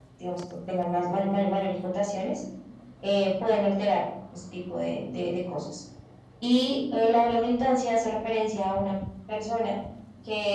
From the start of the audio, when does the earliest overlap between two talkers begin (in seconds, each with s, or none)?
none